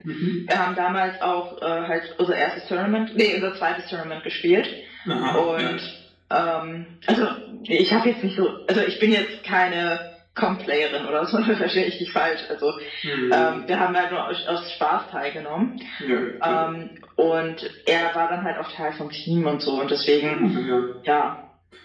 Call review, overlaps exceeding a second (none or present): none